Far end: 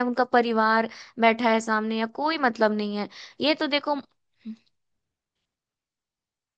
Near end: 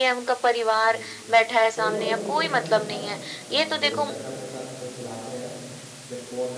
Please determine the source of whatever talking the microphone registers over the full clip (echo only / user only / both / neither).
both